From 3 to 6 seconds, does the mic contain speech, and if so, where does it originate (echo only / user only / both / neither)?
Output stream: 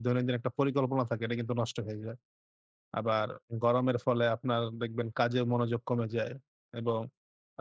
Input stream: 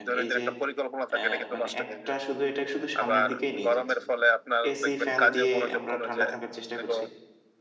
both